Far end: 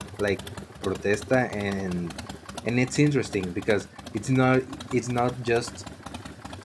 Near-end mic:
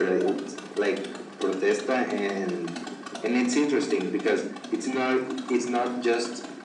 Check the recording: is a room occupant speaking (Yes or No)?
No